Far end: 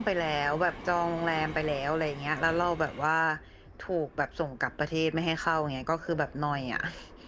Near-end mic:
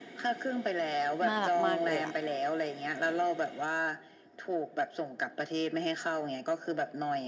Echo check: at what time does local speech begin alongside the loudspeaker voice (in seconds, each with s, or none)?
1.3 s